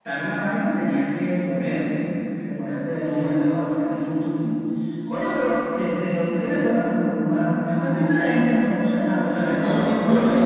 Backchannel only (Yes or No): No